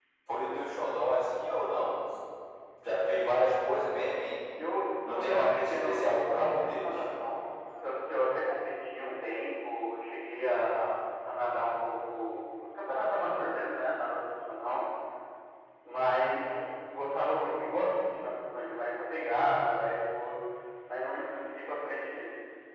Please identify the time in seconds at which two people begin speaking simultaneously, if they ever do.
5.1 s

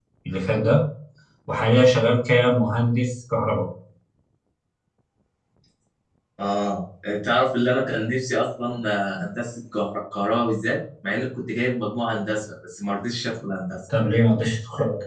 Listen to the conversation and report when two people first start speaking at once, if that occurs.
none

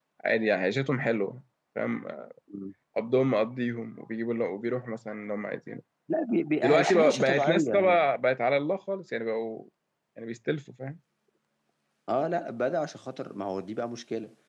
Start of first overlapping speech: 6.6 s

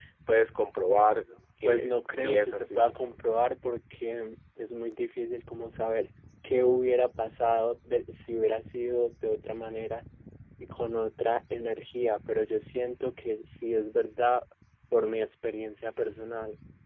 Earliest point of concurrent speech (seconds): 1.6 s

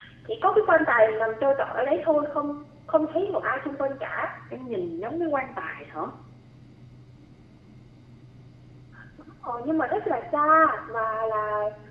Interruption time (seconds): none

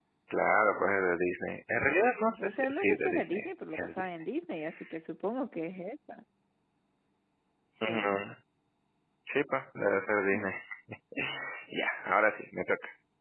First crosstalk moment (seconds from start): 2.4 s

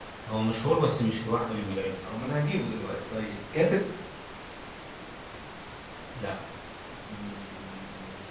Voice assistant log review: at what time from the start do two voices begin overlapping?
none

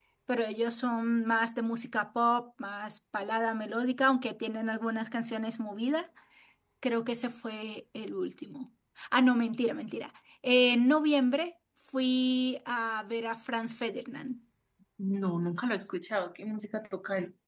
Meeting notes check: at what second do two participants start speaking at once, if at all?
none

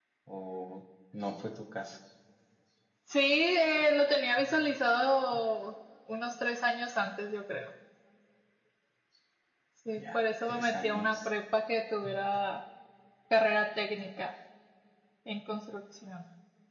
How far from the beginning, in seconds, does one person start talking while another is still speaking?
10.0 s

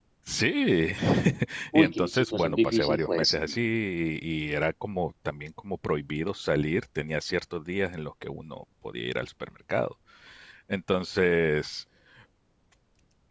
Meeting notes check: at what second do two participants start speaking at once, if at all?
1.8 s

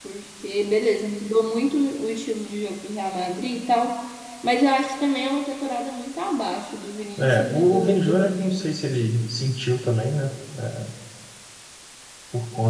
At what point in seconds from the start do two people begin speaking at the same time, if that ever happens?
7.2 s

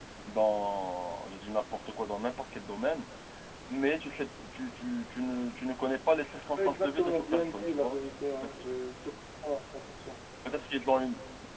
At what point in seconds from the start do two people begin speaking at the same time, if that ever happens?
6.5 s

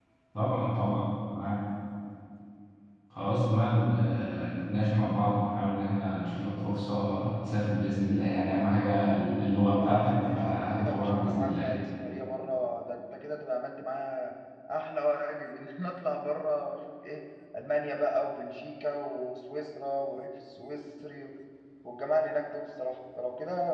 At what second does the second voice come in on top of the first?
9.7 s

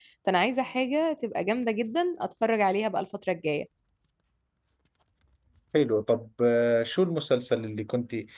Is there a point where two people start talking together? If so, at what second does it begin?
none

